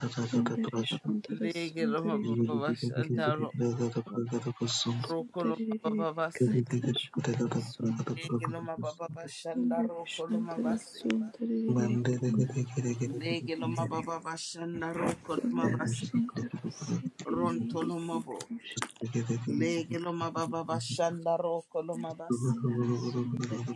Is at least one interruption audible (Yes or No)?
Yes